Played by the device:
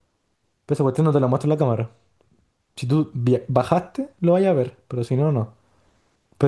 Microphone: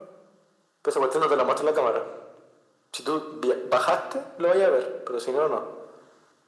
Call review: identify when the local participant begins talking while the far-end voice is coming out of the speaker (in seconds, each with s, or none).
none